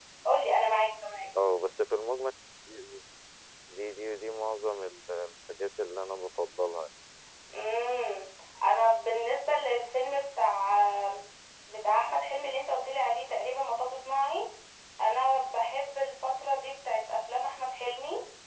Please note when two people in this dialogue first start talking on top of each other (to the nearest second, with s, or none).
none